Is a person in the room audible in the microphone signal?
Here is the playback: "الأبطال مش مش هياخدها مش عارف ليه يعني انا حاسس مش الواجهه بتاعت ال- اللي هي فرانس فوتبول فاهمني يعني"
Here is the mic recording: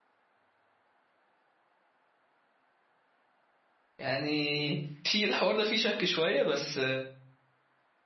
Yes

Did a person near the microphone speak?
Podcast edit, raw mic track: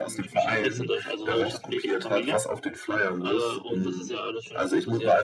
No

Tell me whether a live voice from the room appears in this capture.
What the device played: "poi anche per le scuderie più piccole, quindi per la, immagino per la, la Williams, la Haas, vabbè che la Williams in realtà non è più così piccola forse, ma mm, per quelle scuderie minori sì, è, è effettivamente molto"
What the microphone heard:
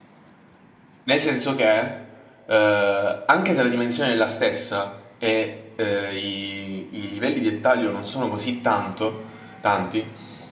Yes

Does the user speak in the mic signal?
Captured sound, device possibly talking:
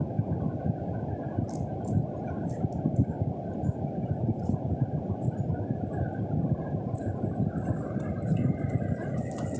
No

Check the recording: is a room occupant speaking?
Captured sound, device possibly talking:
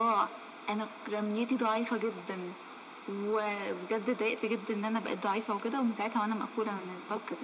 No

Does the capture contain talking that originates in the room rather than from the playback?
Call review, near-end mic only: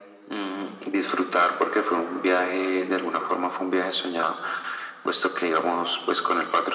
No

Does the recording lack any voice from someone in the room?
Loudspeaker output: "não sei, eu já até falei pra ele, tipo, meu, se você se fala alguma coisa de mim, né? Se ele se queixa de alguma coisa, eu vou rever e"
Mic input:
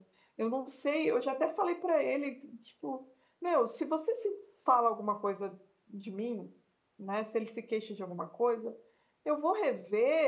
Yes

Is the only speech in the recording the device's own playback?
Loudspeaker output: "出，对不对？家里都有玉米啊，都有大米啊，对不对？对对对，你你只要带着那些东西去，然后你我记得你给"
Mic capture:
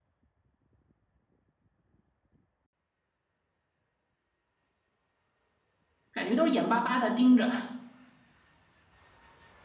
No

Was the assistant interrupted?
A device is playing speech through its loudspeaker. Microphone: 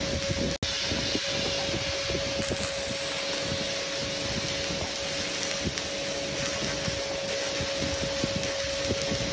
No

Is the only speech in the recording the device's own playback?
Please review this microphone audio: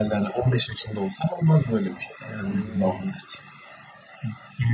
No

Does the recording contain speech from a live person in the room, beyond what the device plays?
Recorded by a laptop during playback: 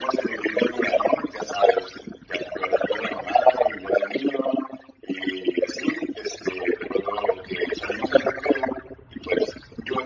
No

